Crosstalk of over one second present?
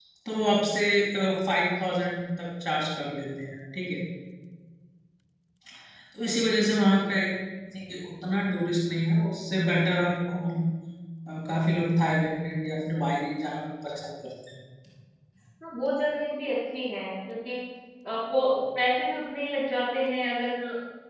No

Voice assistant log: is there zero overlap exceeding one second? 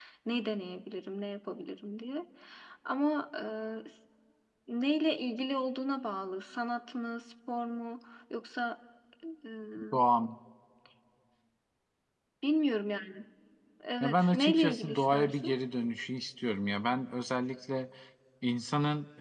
No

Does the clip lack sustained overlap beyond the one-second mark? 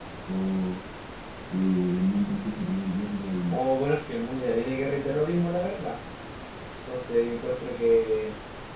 Yes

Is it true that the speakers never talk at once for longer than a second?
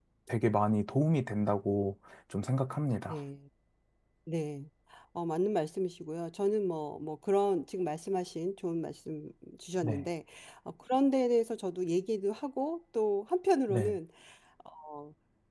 Yes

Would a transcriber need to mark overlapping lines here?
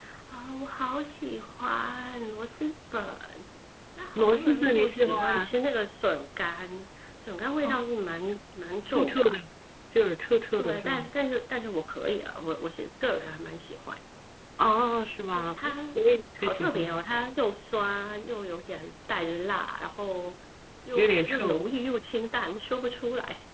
Yes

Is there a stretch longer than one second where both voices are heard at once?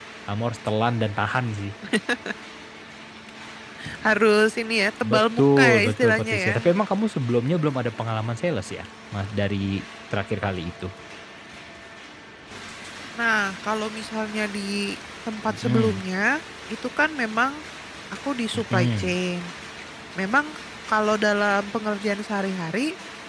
Yes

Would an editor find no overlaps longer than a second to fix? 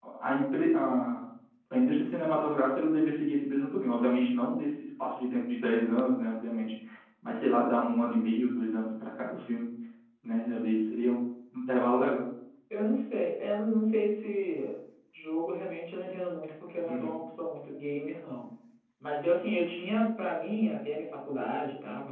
Yes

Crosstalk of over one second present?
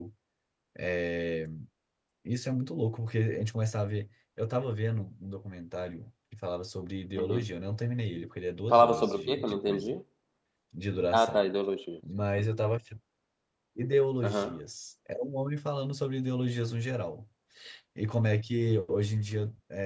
Yes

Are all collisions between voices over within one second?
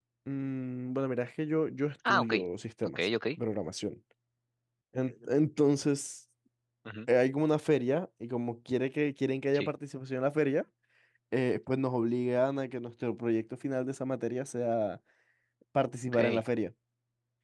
Yes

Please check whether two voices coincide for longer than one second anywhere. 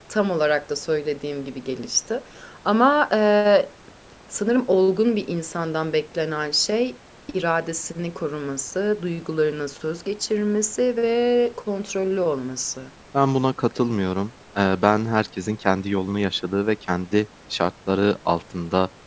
No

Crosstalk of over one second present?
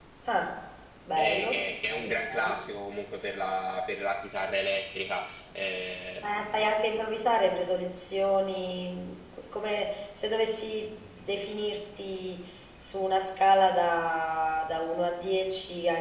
Yes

